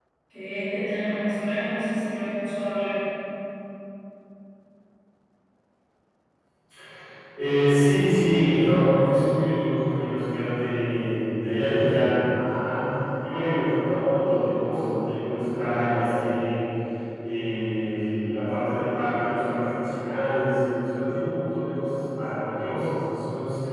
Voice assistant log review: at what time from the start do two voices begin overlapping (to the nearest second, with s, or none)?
none